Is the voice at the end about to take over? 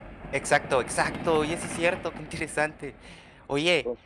No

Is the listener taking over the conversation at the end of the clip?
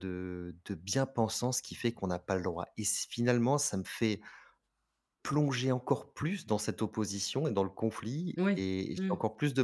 No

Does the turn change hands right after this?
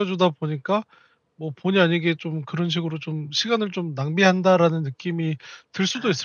Yes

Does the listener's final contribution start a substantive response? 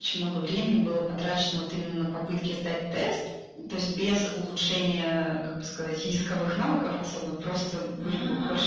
Yes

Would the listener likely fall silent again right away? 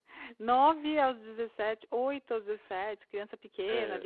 Yes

